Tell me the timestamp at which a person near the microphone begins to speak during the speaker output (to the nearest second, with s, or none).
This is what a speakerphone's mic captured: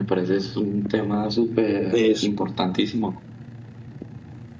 2 s